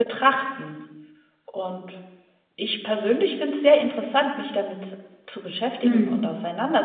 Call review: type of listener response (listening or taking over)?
listening